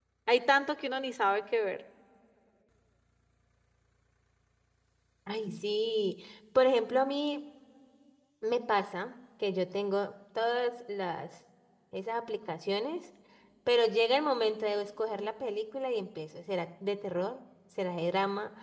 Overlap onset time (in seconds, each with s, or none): none